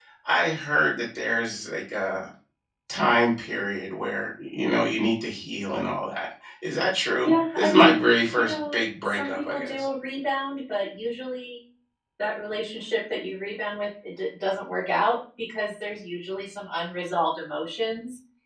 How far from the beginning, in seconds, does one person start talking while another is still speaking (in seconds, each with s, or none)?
7.2 s